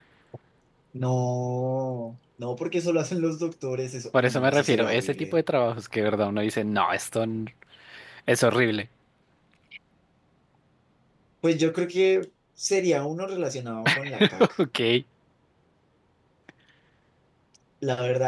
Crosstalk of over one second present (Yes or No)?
Yes